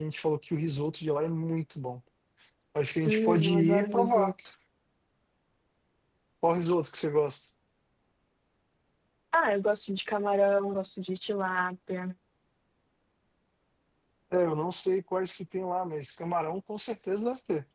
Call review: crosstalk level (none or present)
present